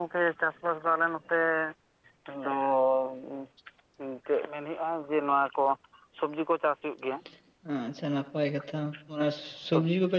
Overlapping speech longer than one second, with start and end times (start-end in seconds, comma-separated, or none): none